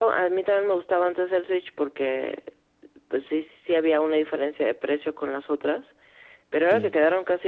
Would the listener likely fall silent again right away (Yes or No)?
Yes